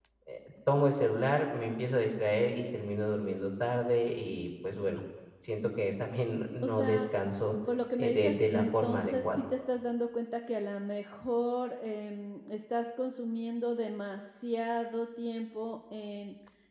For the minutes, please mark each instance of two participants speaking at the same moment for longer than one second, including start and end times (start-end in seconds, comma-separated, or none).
8.0-9.4